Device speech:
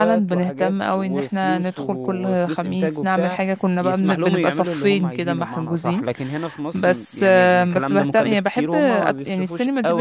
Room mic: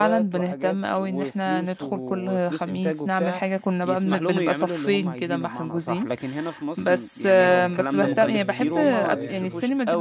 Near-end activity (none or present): present